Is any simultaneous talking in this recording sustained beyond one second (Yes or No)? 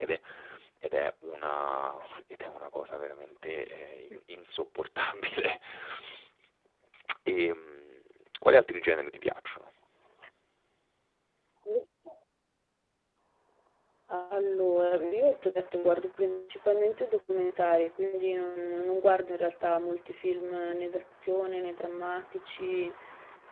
No